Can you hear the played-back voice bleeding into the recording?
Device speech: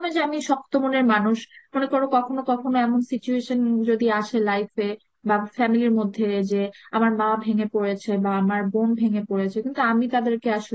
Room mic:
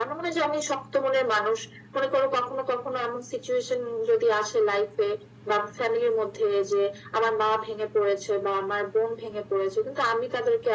Yes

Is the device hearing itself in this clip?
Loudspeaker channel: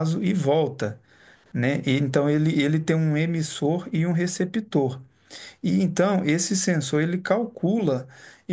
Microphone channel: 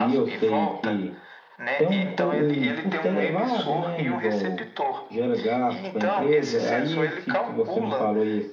Yes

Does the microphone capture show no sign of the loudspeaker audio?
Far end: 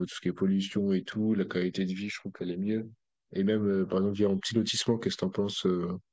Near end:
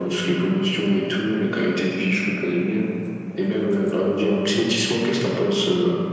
No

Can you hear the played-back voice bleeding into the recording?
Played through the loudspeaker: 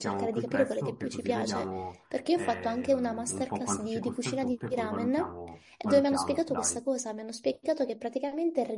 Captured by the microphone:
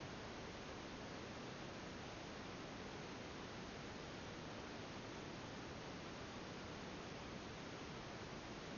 No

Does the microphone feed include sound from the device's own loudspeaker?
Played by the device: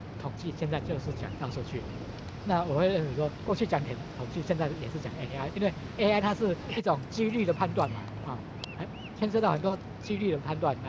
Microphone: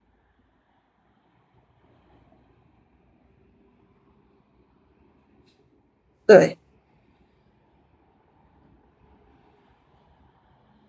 No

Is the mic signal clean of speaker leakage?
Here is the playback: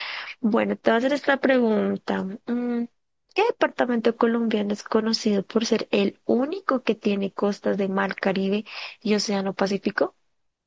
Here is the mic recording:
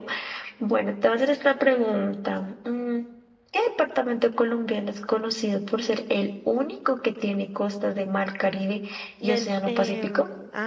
No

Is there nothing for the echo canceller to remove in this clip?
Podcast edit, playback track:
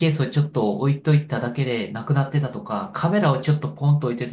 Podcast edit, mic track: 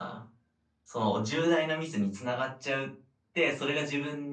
Yes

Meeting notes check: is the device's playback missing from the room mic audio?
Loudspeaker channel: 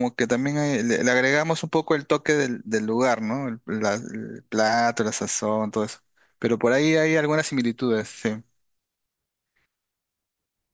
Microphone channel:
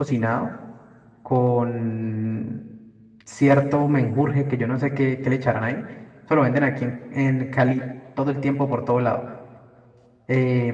Yes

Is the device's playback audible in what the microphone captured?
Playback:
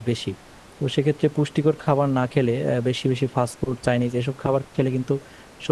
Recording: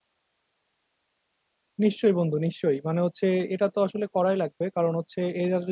No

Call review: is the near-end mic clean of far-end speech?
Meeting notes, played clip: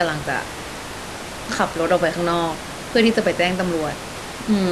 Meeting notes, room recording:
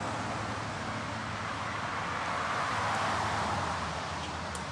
Yes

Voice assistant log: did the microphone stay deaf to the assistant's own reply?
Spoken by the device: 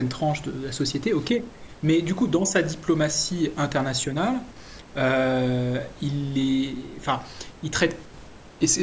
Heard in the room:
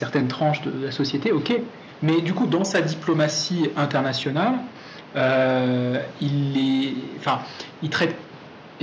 No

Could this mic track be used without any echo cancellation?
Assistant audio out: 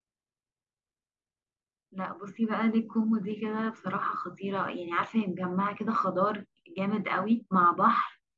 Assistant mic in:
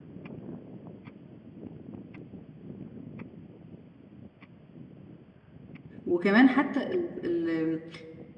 Yes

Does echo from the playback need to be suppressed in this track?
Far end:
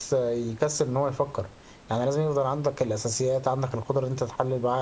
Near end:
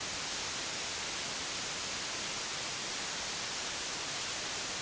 No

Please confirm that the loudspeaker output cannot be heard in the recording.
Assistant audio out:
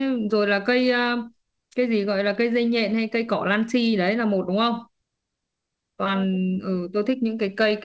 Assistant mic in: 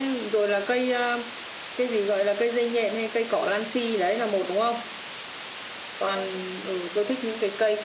No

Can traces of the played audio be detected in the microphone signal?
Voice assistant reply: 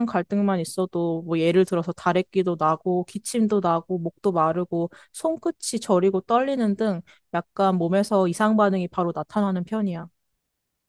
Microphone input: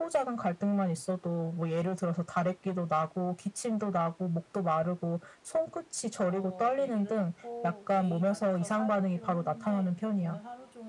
Yes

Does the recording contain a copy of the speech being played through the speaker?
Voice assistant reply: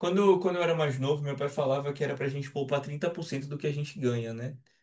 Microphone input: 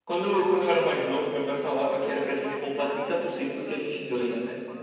Yes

